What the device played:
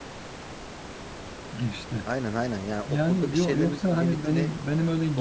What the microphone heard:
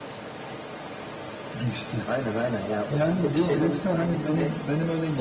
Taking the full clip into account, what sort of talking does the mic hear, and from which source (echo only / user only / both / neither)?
echo only